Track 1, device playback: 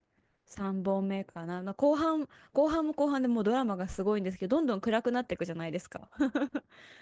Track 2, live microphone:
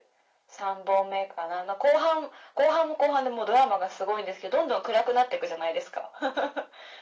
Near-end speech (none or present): none